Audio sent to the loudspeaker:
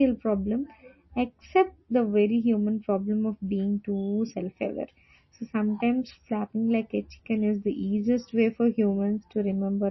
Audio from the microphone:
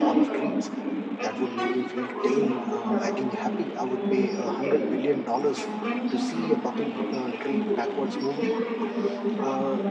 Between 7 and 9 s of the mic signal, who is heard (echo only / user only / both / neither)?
both